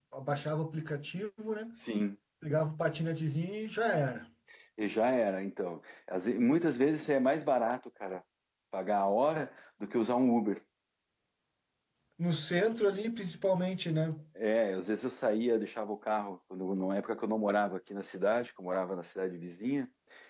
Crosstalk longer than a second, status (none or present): none